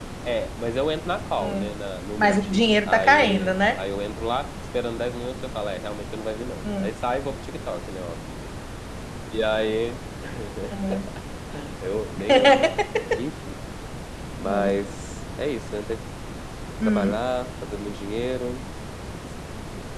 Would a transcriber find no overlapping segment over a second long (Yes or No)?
No